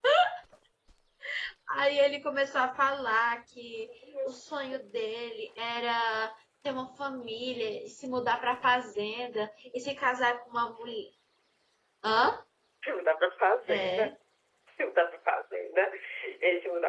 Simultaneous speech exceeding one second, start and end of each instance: none

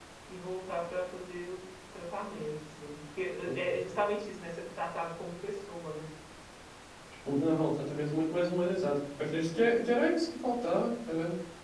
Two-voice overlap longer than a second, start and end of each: none

